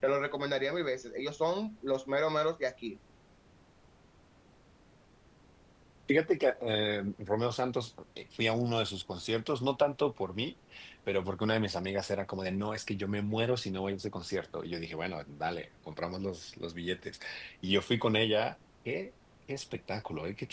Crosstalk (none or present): none